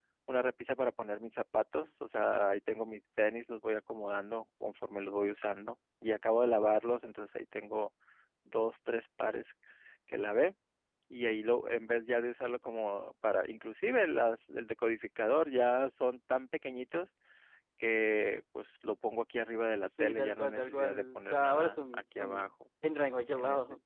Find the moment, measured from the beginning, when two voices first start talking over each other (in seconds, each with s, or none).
20.0 s